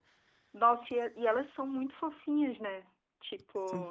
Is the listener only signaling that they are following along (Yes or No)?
Yes